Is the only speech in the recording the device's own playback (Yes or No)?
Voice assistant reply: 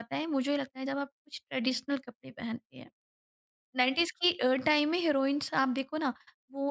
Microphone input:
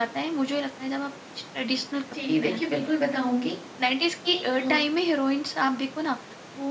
No